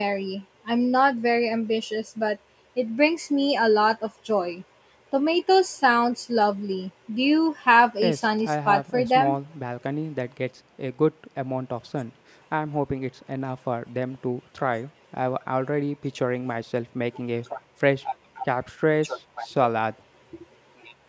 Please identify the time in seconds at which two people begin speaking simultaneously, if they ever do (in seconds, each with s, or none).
8.0 s